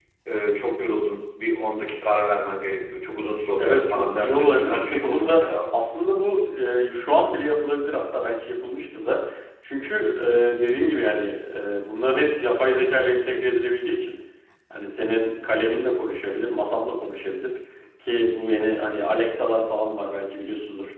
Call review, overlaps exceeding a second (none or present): present